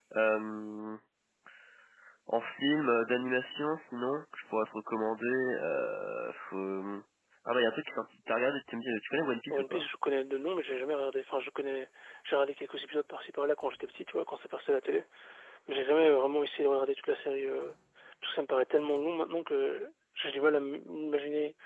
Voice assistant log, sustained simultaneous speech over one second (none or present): none